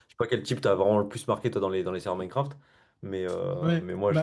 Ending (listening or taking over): taking over